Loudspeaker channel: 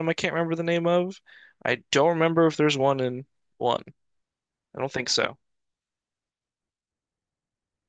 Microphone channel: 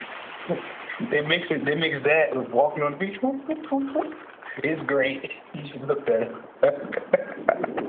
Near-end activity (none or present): present